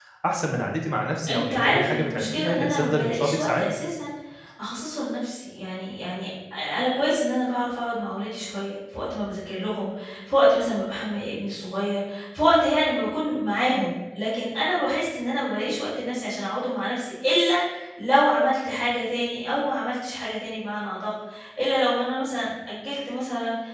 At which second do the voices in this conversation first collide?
1.3 s

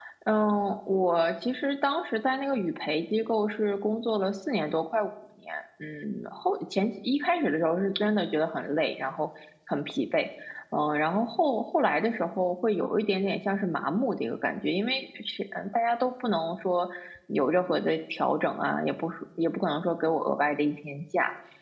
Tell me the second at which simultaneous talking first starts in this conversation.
none

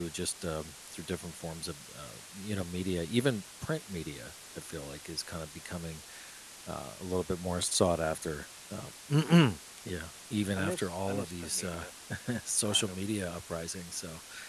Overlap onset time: 10.6 s

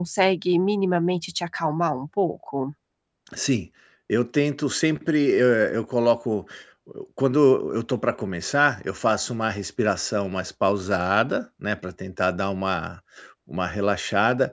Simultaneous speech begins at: none

